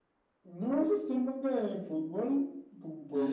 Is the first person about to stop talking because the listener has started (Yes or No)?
No